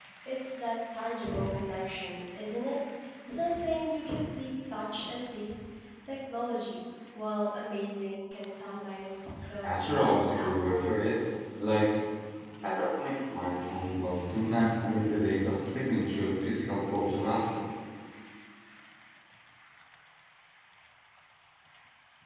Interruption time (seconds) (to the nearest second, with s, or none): 10 s